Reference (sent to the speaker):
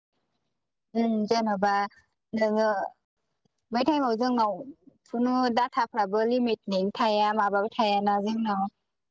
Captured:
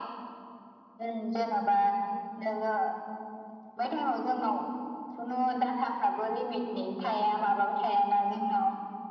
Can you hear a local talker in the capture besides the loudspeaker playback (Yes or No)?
No